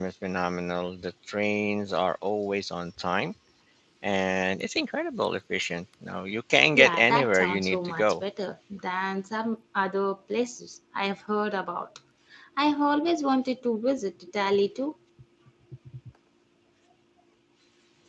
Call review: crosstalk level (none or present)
present